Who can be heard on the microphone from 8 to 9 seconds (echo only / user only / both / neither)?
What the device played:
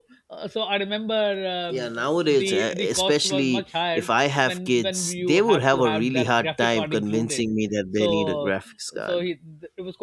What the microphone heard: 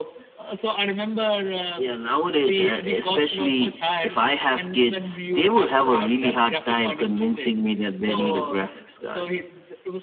echo only